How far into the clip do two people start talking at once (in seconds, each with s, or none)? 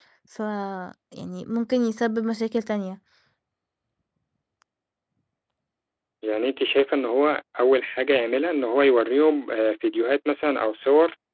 none